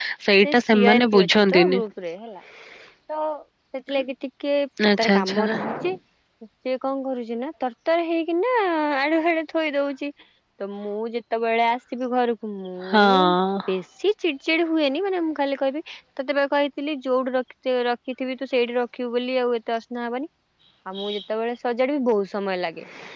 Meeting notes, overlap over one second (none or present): present